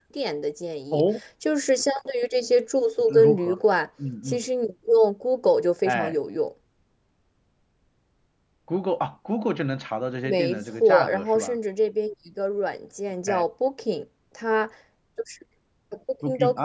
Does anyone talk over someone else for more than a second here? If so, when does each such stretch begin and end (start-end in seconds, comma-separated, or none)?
10.2-11.6